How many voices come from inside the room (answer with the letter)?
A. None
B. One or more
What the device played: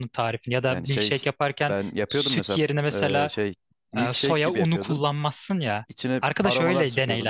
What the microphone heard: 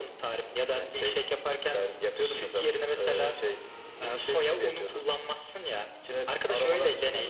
A